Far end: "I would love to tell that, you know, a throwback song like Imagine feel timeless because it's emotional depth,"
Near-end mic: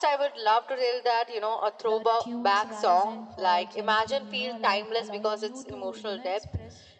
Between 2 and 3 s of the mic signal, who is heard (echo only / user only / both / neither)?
both